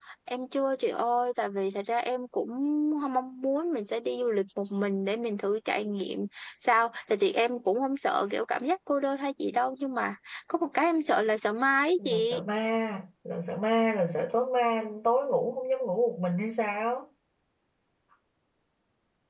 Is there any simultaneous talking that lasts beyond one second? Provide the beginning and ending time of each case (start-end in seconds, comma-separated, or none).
none